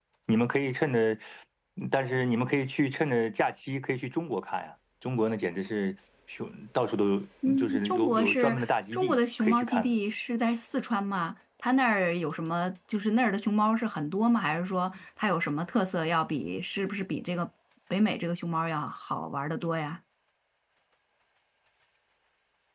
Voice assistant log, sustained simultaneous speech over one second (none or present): present